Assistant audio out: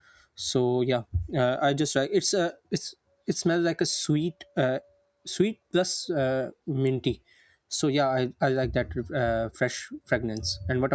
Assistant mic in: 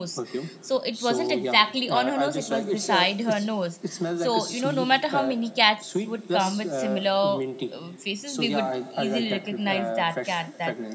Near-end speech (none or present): present